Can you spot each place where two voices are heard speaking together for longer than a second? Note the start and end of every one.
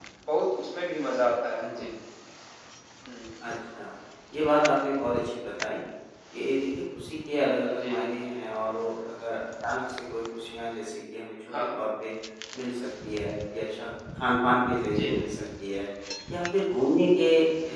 none

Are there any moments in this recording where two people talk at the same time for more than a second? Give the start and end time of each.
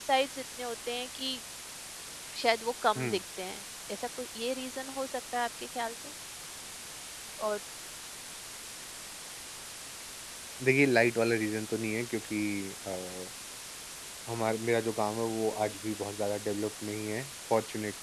none

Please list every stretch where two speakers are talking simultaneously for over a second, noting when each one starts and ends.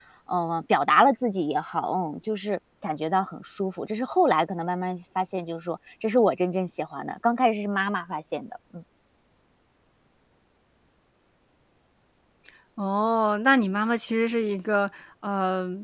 none

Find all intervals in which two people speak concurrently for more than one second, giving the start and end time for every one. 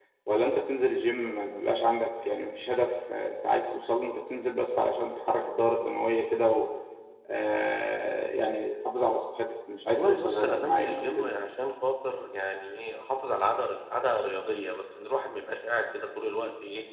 9.9-11.3

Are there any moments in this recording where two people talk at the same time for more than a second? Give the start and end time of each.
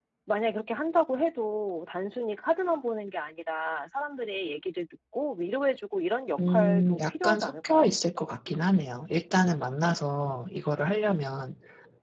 6.4-7.9

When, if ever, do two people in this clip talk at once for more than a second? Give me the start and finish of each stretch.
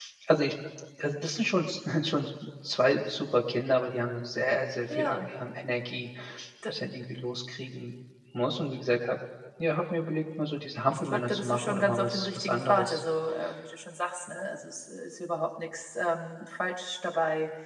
10.9-13.0

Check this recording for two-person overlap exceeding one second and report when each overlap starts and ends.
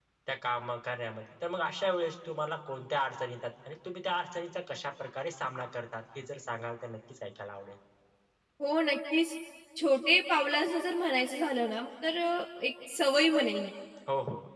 none

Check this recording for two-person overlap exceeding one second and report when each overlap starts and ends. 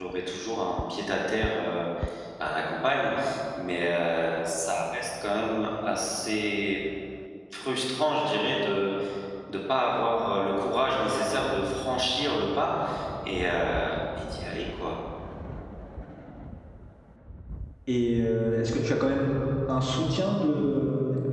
none

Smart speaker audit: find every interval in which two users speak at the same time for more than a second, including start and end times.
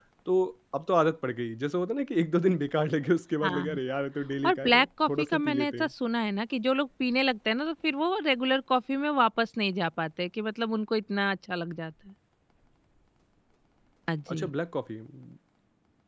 4.5-5.9

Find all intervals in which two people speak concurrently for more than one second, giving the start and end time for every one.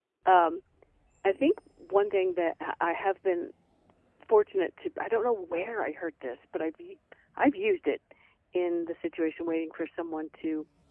none

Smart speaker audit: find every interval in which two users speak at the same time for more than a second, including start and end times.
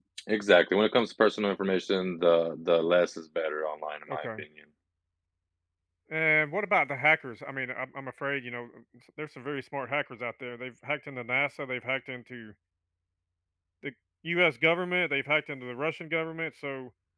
none

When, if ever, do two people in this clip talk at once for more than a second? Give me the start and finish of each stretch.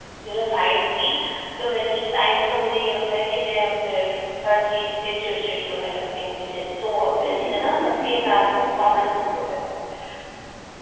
7.2-9.0

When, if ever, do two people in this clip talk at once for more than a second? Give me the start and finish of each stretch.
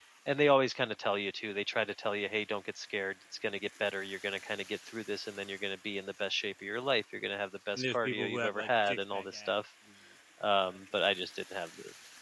7.8-9.5

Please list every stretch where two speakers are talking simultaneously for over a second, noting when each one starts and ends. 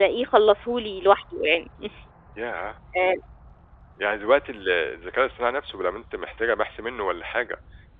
none

